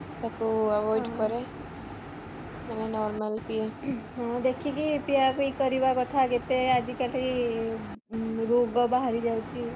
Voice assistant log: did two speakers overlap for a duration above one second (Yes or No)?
No